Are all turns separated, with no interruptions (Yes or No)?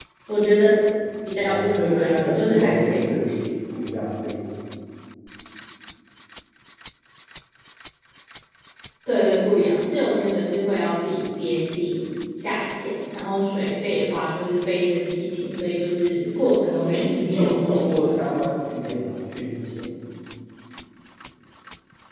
No